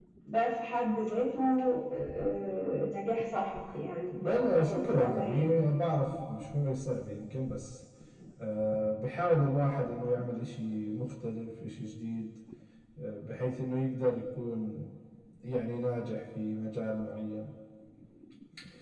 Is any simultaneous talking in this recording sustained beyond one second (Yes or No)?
Yes